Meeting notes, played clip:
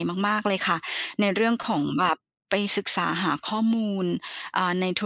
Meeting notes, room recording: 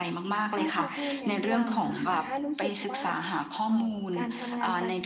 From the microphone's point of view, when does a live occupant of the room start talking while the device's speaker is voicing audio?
0.5 s

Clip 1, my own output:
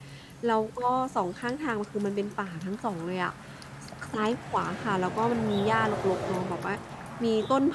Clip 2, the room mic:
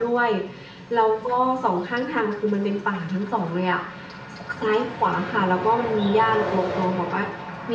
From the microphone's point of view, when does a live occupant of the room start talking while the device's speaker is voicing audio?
none

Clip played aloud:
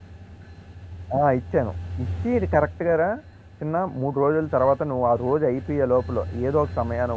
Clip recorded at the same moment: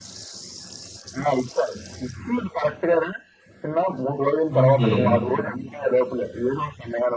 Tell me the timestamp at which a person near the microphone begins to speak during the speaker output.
4.6 s

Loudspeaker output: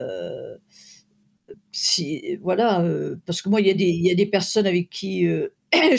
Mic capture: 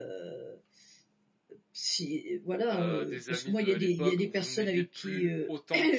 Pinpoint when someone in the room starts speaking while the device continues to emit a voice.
2.7 s

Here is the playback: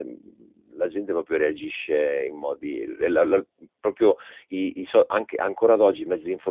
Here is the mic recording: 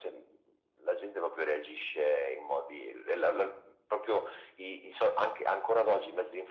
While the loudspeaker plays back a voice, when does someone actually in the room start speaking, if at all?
none

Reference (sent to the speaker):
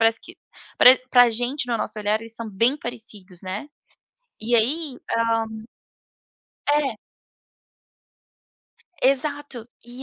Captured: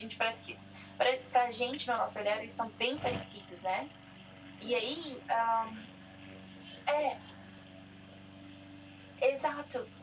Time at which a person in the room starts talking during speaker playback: none

